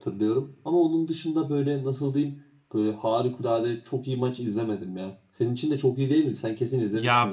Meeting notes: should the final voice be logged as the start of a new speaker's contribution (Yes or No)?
Yes